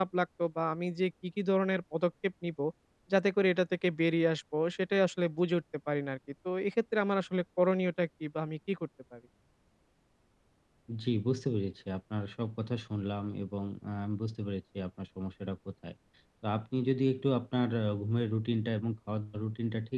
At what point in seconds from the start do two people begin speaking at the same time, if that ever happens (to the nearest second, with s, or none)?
none